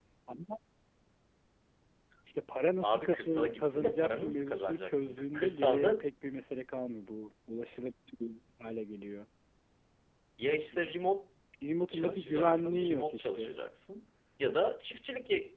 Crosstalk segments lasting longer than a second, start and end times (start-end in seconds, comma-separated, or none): 2.8-6.1, 11.9-13.5